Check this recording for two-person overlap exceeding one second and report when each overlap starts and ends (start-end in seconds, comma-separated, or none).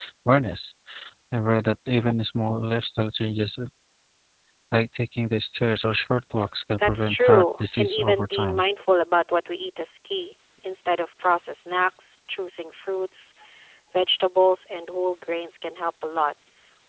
6.8-8.6